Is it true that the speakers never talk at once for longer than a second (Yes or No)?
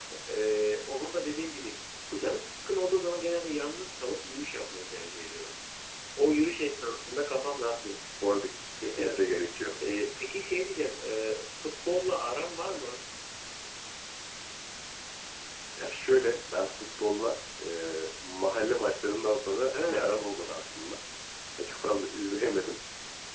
Yes